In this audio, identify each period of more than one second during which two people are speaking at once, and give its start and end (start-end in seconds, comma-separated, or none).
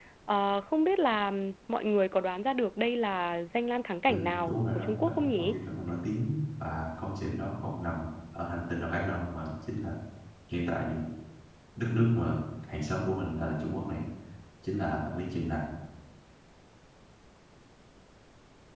4.1-5.6